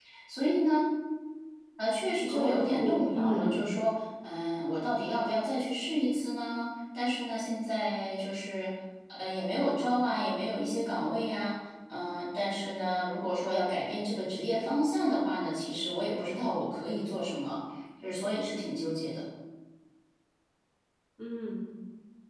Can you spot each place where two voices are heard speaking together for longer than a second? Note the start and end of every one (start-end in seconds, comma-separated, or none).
2.3-3.6